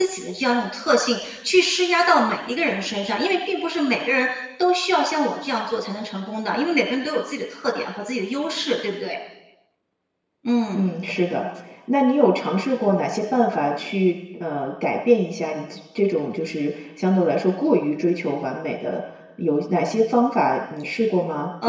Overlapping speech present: No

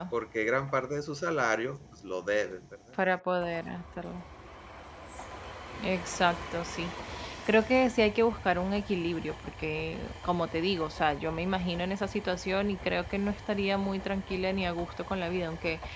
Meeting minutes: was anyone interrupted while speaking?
No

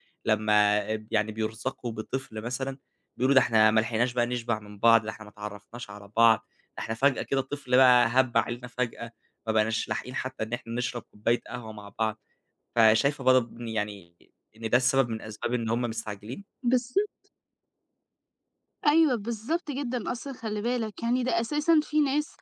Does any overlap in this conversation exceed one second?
No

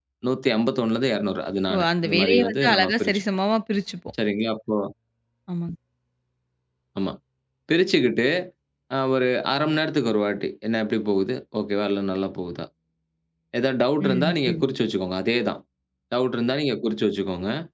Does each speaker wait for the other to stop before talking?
No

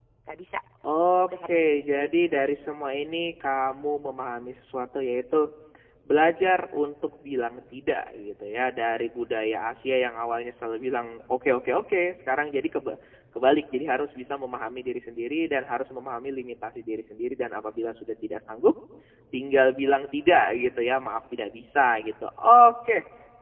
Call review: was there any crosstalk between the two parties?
Yes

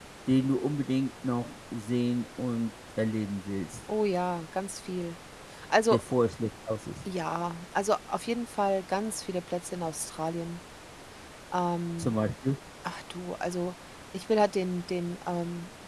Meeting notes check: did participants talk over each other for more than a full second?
No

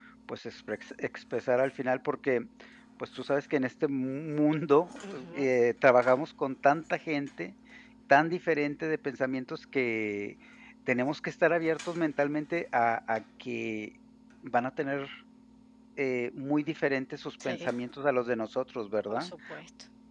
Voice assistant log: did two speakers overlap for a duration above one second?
No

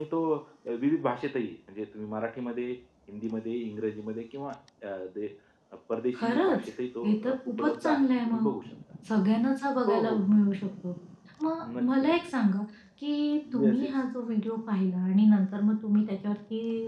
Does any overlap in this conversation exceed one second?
Yes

